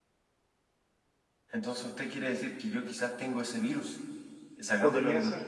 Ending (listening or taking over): listening